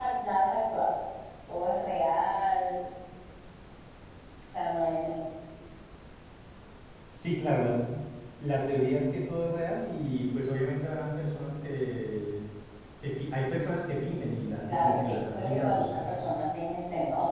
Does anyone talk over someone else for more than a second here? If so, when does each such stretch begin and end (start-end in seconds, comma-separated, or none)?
14.7-16.2